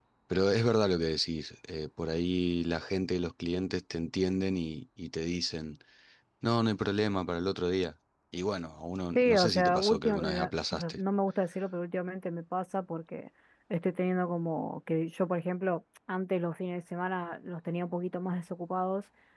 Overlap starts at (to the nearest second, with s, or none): 9 s